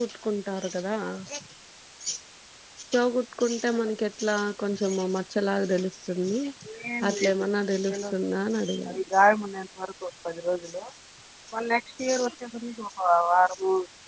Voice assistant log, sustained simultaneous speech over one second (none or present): none